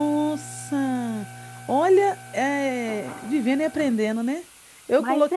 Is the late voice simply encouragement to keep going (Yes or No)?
Yes